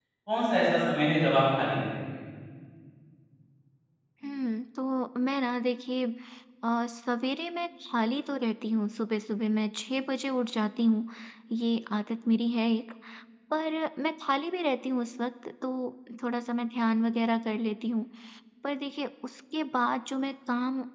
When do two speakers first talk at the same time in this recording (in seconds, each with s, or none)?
none